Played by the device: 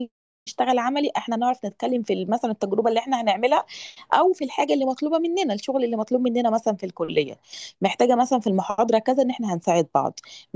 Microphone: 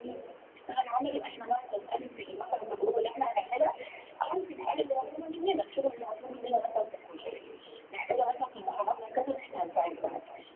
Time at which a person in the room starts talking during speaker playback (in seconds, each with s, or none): none